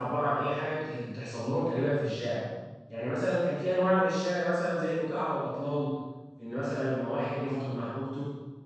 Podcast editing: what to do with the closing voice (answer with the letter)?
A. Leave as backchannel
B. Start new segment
A